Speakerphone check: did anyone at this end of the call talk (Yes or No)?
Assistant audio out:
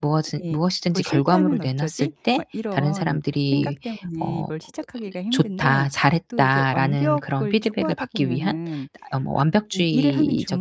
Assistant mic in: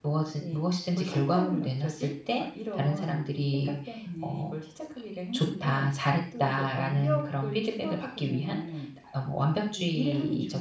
No